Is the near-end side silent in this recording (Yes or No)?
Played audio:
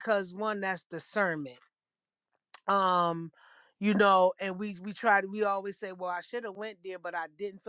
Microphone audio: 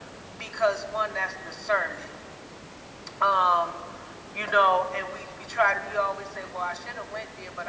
Yes